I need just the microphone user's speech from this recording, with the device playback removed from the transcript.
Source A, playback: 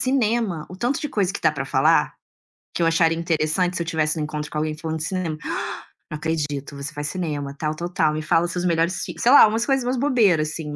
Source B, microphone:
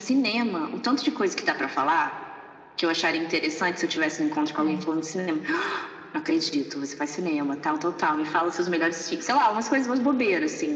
É.

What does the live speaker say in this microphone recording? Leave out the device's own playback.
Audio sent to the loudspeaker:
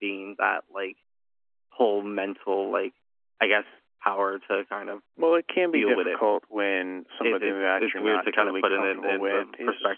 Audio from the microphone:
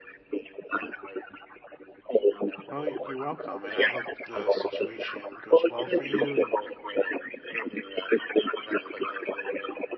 Well, y- you're welcome, and I hope the situation goes well for you and

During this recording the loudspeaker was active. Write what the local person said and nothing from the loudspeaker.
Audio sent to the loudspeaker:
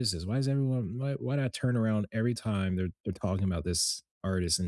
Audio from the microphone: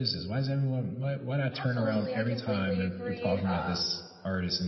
Absolutely, I completely agree. Uh,

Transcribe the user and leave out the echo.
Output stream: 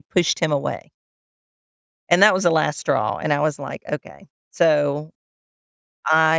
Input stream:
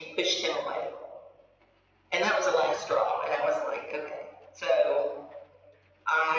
none

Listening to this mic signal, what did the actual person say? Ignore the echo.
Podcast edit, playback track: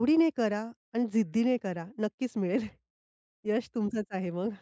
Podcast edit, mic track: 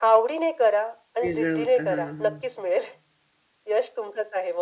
वेगळं होतं. हां, हां.

